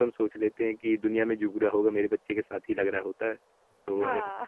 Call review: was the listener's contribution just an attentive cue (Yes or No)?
Yes